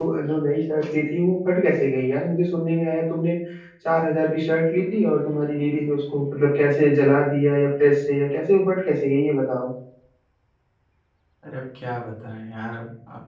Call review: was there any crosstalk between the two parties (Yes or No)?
No